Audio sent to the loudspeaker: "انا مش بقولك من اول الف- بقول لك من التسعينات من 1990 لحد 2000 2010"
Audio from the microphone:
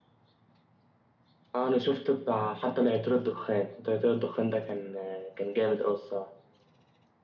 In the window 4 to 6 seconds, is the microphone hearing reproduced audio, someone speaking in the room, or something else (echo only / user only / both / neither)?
user only